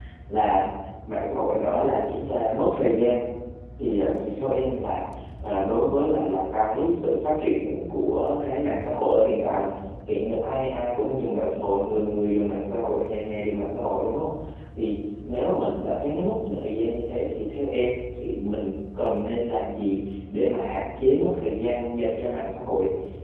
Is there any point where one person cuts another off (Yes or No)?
No